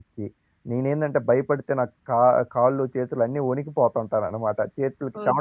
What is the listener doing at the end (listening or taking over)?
taking over